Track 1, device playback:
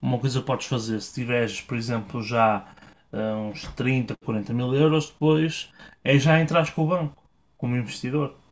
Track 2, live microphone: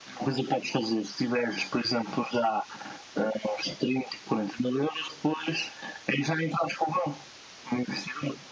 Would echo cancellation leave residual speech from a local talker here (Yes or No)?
No